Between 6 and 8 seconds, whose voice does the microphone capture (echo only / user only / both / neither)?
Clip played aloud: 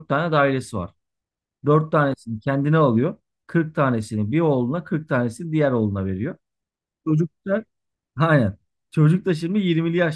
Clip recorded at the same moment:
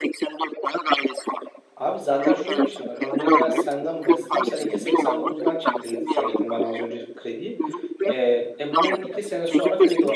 both